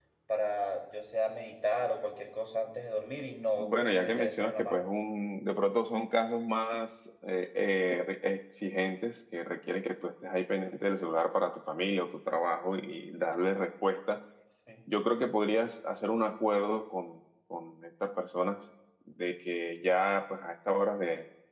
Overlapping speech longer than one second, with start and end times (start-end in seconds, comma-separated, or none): 3.6-4.8